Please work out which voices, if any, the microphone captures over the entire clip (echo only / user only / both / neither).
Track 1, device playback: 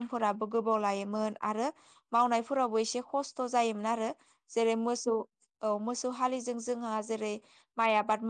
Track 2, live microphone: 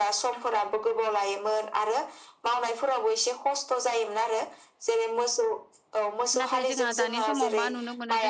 both